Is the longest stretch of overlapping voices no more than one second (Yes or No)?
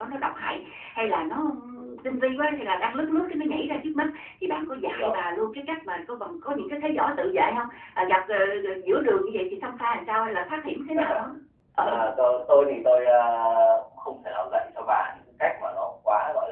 Yes